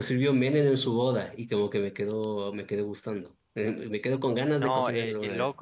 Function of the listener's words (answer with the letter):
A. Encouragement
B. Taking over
B